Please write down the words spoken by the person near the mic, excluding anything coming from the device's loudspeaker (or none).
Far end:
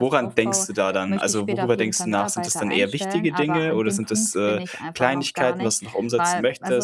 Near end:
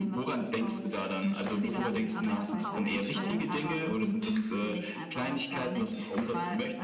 ich lasse die Arbeit zu Hause und alles,